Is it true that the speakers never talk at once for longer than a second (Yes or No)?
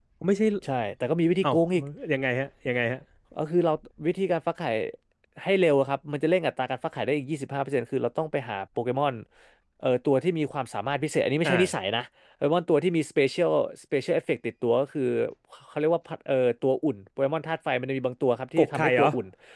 Yes